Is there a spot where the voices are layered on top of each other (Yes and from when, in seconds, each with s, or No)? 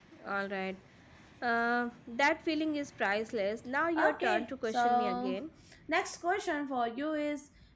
Yes, from 4.0 s